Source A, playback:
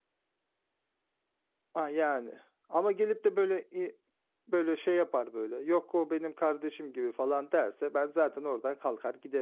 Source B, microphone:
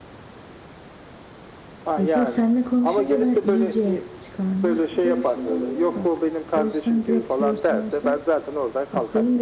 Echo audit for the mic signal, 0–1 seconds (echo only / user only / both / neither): neither